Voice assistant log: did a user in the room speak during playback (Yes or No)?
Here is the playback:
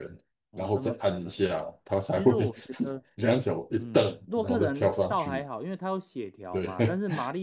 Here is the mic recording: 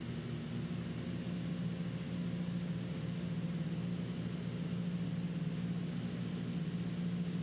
No